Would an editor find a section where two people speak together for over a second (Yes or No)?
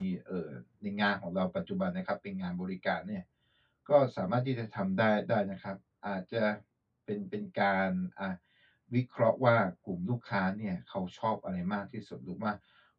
No